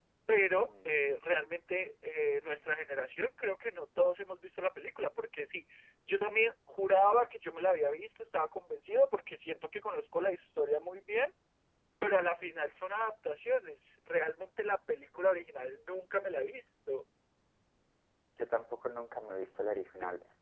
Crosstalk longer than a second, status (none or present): none